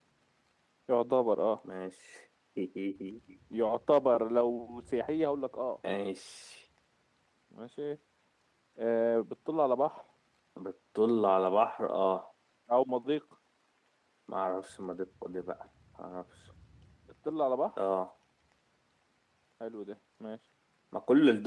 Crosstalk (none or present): none